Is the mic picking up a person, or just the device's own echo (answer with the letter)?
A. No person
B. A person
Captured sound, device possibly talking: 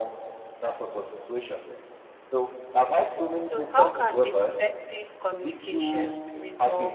B